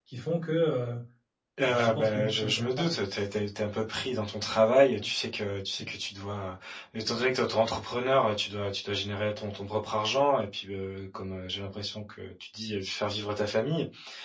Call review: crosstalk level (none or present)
present